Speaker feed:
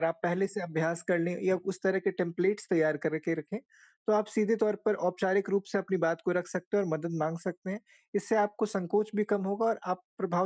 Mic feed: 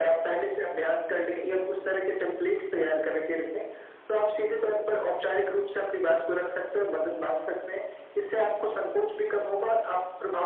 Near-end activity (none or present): none